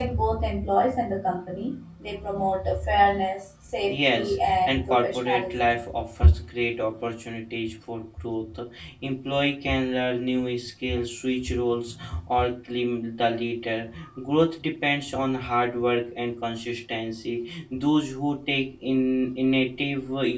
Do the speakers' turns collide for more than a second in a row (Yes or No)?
Yes